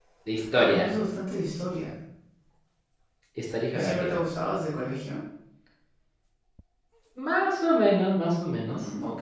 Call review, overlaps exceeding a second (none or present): none